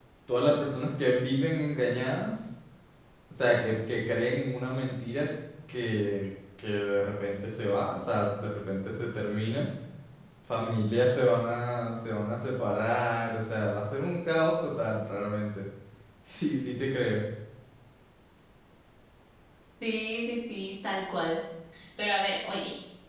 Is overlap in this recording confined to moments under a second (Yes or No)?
Yes